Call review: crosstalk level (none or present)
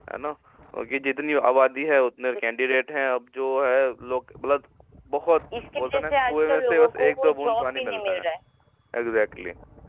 present